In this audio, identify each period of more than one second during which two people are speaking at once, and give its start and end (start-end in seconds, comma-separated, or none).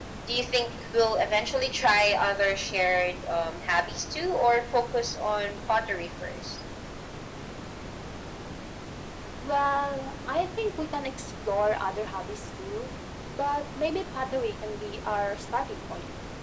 none